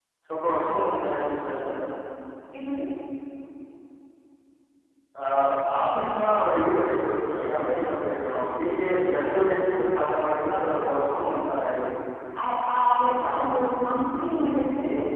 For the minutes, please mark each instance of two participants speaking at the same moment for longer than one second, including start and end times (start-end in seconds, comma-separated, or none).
none